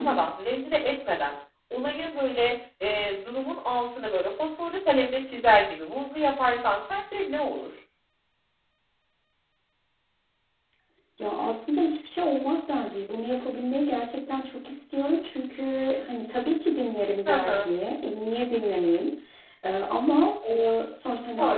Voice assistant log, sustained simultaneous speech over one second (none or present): none